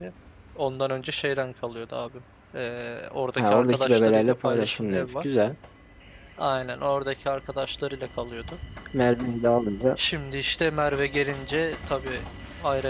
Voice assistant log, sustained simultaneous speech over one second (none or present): present